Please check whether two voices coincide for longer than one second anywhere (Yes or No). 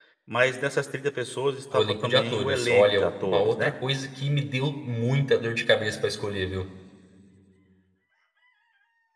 Yes